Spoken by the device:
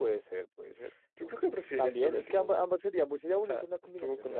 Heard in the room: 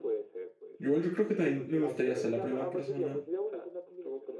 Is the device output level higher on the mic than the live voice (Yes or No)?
No